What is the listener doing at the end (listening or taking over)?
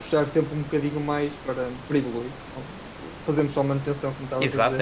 taking over